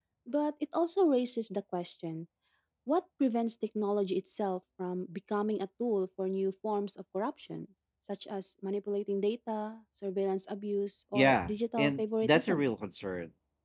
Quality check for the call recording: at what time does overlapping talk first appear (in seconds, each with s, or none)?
11.1 s